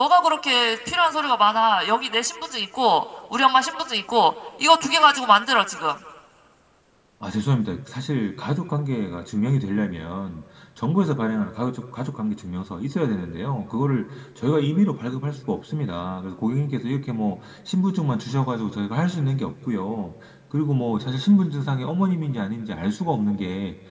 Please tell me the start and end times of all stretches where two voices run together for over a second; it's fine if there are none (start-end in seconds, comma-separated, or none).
none